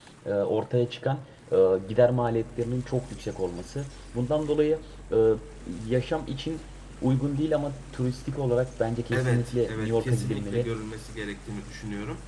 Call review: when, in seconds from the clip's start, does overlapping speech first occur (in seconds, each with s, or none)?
9.1 s